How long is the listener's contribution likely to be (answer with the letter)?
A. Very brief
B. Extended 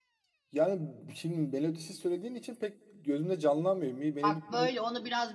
B